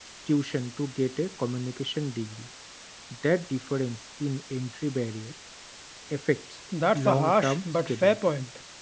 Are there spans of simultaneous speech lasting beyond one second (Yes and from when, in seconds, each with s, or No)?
Yes, from 7.0 s